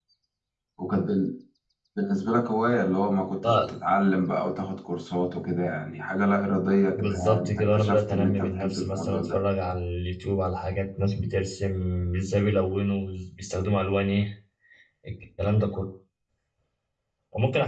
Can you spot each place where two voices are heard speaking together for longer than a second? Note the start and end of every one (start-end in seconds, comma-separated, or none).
6.9-9.4